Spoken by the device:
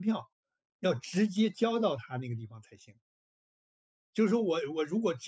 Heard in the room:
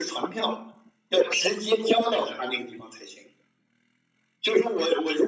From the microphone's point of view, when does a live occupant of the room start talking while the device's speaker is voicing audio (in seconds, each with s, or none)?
none